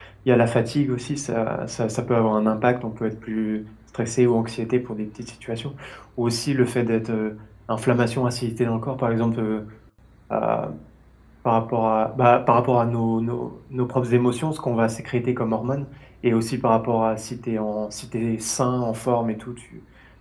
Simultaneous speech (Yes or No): No